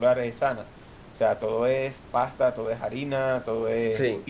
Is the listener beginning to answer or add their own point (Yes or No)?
No